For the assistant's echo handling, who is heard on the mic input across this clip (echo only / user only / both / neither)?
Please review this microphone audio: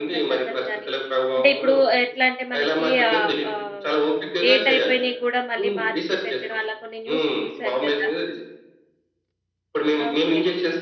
both